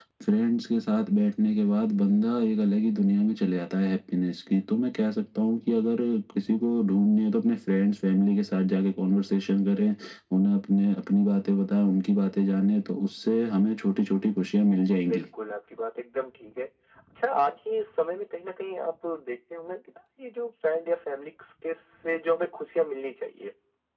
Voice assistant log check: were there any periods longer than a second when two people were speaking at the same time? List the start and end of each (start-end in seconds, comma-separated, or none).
none